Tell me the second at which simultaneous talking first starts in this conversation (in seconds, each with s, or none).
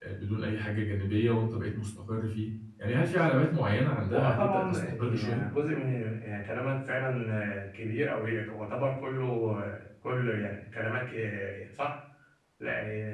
4.1 s